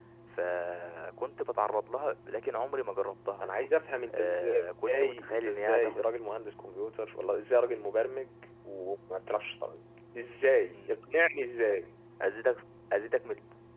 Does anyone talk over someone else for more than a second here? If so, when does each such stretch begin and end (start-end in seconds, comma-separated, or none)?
4.1-6.1